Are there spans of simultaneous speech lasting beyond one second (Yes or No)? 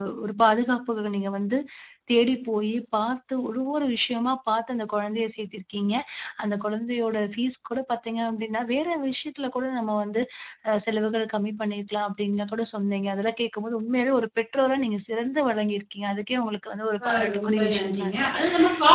Yes